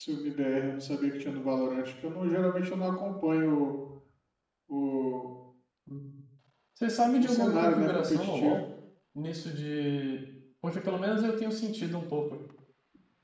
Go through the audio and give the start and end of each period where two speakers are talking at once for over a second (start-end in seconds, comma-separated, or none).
7.2-8.6